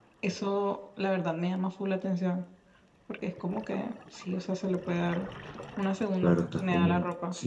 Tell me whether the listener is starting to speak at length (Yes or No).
Yes